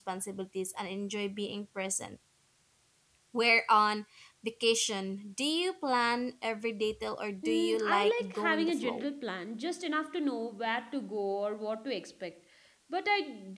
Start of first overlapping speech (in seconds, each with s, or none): 7.4 s